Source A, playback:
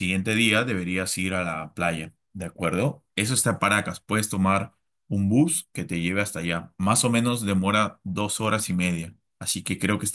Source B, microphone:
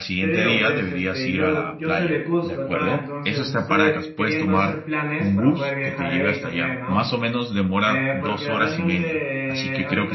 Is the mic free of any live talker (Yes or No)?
No